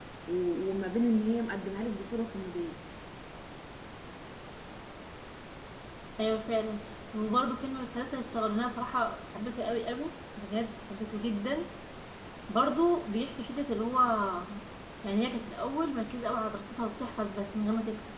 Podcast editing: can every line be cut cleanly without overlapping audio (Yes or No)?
Yes